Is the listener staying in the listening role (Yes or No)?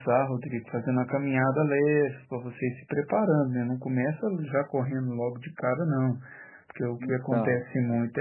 Yes